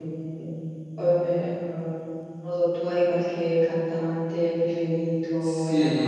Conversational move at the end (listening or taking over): taking over